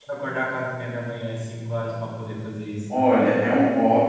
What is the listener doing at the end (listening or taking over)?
taking over